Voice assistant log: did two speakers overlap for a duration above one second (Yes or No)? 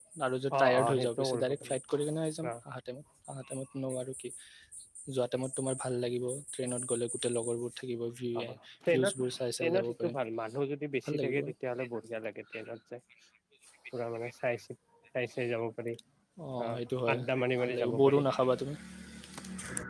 Yes